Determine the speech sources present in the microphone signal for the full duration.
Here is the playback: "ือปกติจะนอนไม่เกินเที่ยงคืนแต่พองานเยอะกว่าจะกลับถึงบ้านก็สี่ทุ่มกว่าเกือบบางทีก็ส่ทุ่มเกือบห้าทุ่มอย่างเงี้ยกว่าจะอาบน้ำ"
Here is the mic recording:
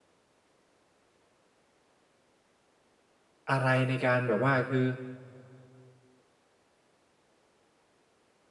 user only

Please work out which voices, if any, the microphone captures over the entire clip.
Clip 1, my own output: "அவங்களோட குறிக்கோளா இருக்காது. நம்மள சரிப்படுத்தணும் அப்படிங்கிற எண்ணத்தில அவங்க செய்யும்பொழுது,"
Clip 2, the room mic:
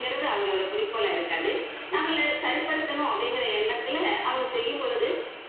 echo only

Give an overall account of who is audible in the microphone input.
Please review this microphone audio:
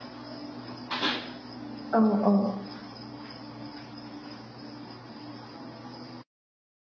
user only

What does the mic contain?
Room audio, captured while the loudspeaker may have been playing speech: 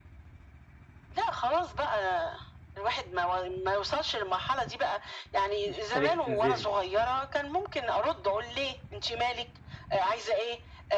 both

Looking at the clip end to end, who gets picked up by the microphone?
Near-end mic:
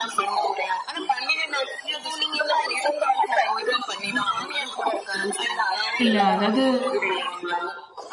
both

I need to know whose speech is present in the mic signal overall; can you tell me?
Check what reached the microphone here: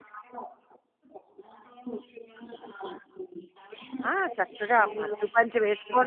both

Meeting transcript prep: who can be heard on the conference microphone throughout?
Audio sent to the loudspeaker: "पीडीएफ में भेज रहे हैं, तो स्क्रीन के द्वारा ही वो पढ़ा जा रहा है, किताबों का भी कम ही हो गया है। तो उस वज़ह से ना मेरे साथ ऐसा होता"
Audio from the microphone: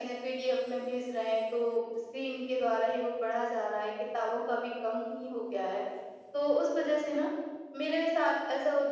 echo only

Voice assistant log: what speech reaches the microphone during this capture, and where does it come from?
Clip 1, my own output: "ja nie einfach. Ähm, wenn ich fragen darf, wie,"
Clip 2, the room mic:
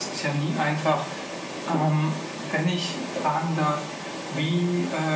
echo only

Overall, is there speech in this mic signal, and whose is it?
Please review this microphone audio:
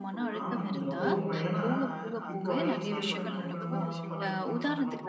both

